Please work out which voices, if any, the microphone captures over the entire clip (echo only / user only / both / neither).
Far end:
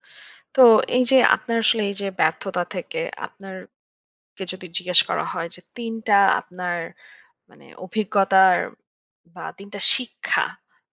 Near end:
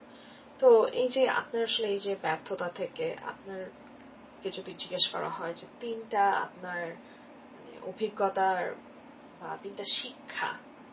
echo only